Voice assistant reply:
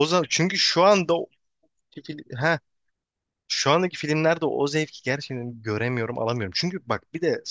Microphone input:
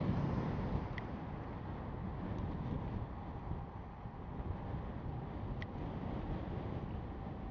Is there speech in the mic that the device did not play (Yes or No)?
No